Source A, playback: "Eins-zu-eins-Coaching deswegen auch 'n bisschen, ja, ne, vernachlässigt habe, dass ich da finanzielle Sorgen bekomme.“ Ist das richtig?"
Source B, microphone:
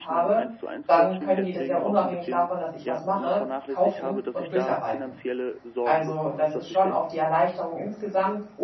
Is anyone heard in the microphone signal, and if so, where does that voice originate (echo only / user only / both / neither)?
both